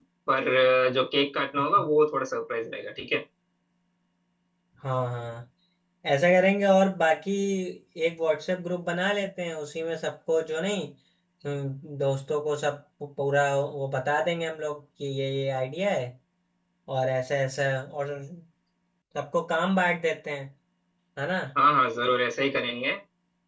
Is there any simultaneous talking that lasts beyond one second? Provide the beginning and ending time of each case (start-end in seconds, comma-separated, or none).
none